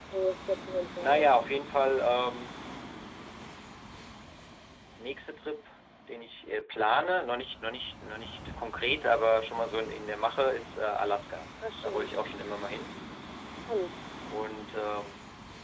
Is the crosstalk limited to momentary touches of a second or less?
Yes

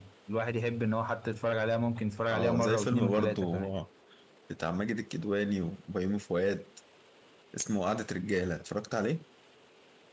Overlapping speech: Yes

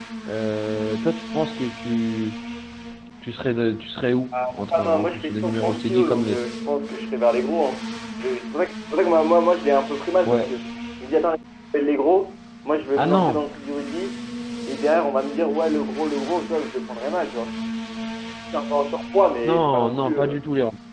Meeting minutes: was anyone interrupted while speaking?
Yes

